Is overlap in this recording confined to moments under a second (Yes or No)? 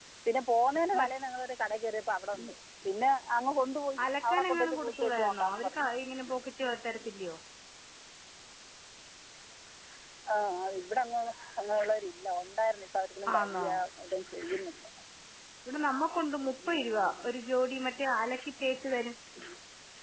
No